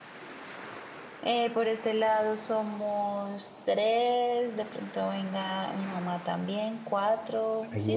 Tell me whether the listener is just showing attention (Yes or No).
No